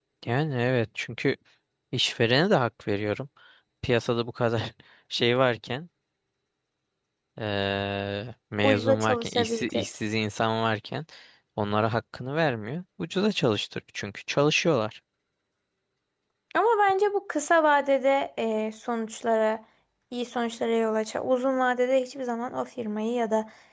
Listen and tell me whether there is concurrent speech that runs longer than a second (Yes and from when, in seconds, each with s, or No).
Yes, from 8.6 s